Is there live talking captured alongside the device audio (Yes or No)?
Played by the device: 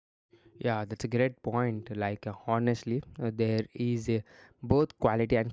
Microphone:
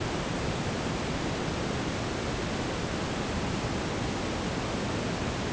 No